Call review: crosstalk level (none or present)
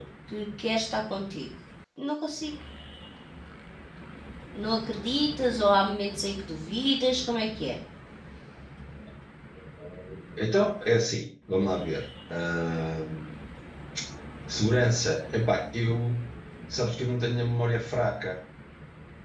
none